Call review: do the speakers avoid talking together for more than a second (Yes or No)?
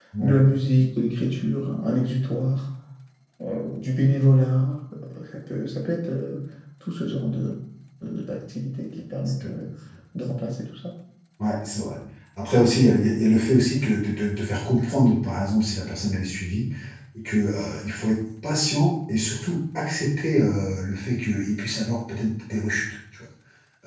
Yes